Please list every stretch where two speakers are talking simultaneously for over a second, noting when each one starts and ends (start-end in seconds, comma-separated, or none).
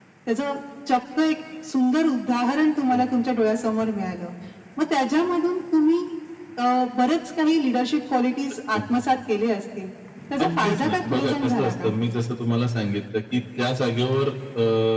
10.4-11.9